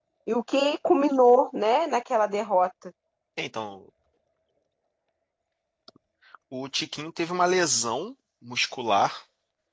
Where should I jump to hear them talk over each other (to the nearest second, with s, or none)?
none